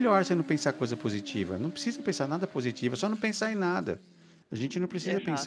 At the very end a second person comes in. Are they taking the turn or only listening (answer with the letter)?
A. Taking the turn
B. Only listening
B